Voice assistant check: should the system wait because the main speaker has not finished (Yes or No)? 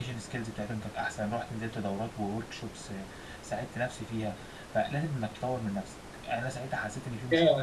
No